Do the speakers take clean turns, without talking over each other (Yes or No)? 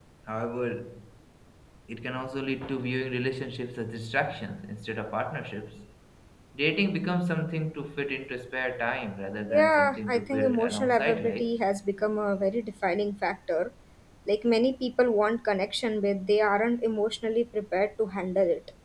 No